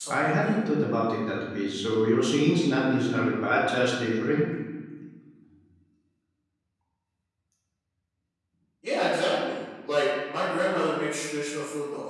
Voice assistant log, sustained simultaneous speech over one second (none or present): none